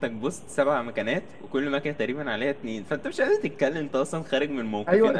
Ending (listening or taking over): taking over